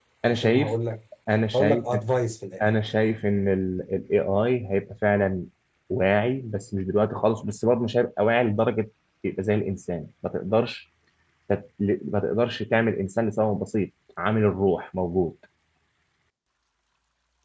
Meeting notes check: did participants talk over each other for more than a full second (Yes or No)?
No